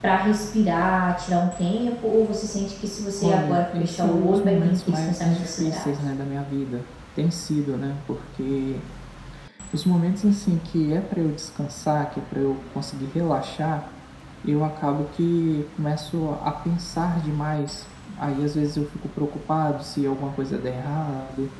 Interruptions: present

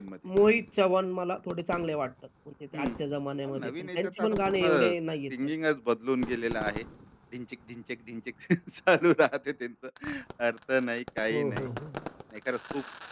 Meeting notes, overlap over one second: present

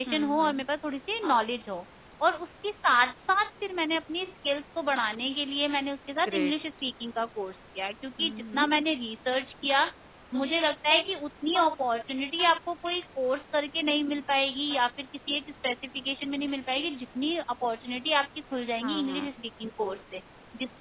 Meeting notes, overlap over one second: none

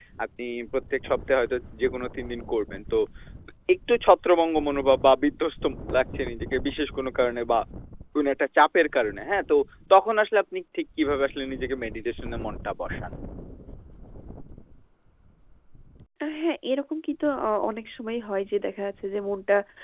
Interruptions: none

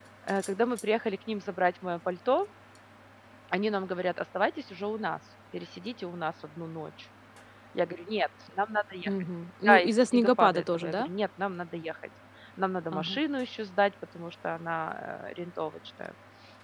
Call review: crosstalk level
present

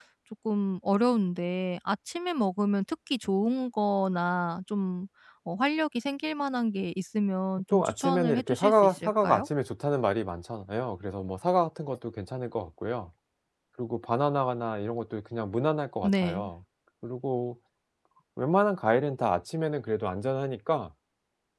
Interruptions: present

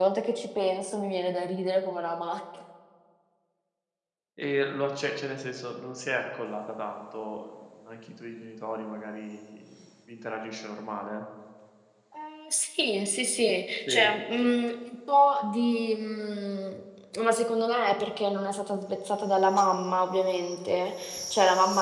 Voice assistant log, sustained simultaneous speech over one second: none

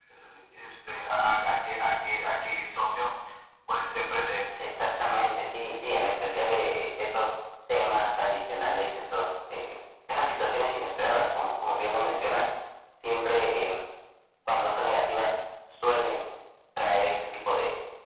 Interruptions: none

